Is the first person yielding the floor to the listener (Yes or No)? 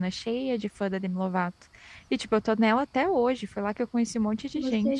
Yes